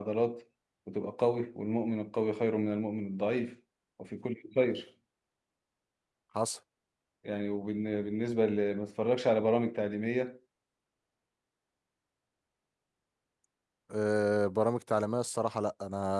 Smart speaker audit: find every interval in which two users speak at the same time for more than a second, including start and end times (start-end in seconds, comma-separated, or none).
none